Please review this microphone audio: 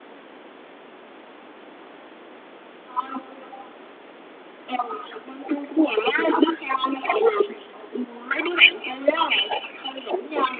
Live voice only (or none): none